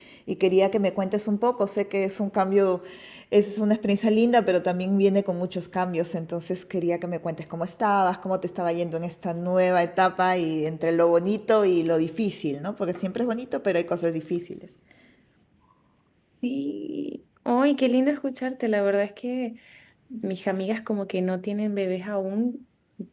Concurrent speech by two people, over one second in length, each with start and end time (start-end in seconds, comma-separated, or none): none